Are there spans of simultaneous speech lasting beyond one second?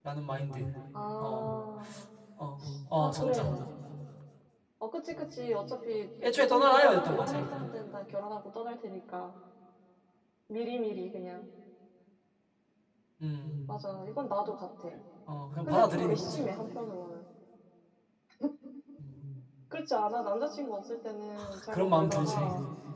Yes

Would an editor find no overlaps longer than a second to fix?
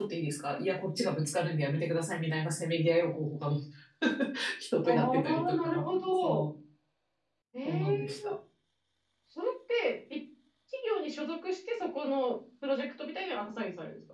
No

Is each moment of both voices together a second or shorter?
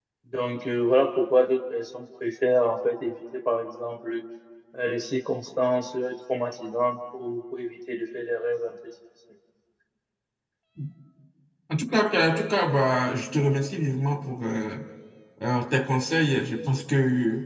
Yes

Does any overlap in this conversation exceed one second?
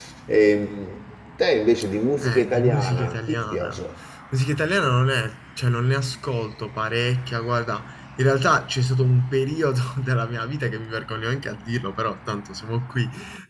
Yes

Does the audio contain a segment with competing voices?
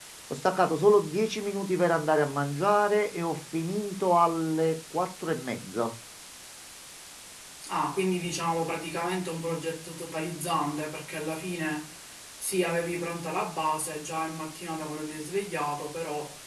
No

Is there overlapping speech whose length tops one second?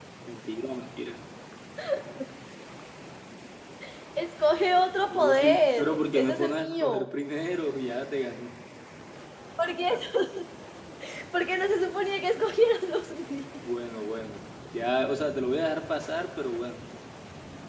Yes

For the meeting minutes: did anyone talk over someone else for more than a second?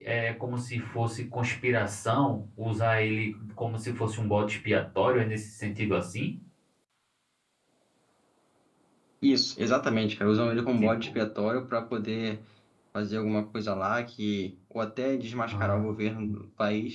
No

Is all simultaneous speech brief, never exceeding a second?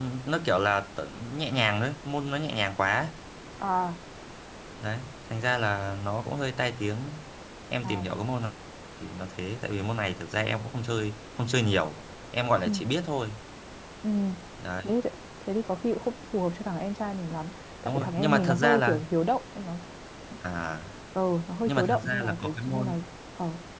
No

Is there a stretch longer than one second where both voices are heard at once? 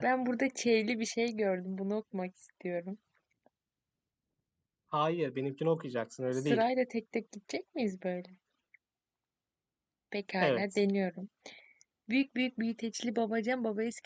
No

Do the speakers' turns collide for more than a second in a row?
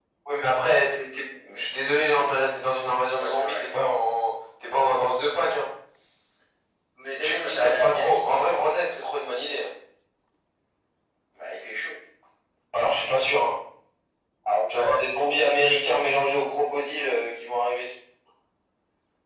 Yes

